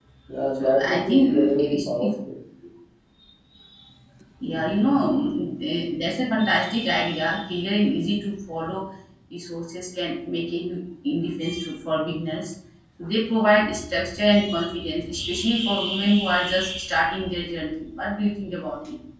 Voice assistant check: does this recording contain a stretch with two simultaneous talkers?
Yes, from 0.6 s

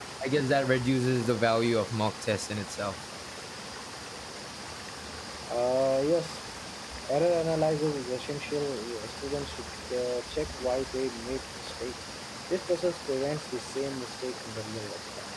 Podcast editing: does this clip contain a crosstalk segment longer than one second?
No

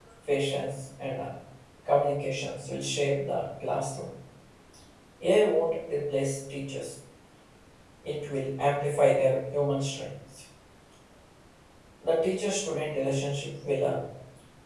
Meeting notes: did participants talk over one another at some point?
No

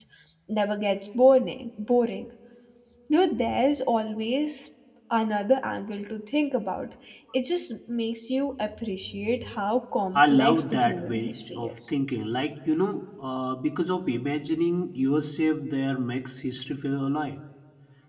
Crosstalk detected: Yes, from 10.2 s

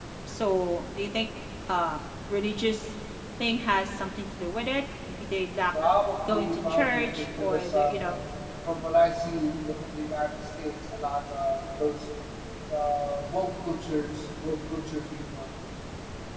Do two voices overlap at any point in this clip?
Yes, from 6.3 s

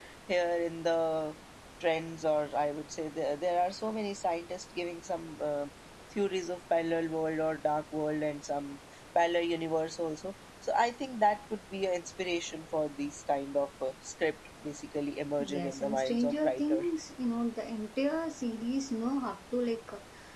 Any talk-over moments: Yes, from 15.4 s

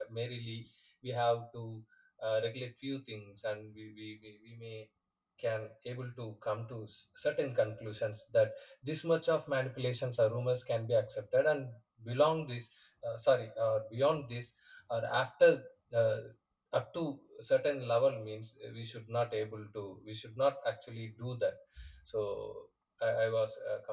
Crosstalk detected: No

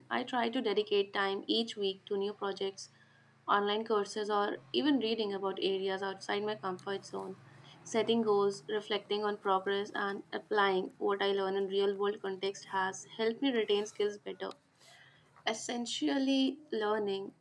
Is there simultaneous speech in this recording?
No

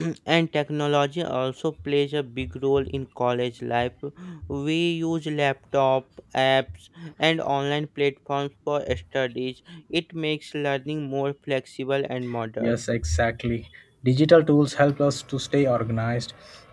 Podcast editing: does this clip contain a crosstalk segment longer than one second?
No

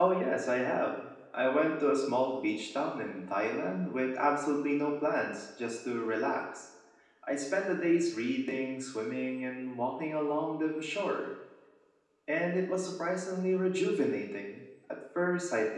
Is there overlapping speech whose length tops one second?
No

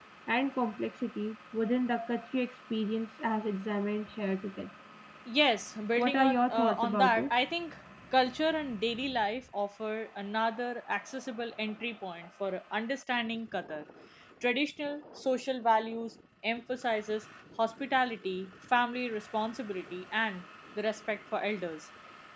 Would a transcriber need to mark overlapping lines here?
Yes, from 6.0 s

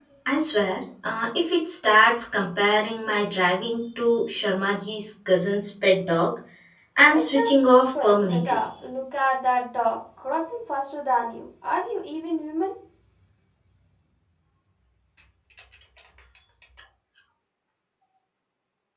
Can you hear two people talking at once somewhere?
Yes, from 7.1 s

